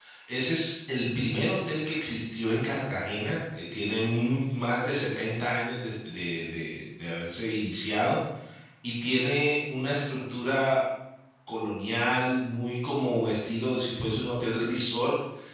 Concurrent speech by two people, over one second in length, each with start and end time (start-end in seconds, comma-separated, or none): none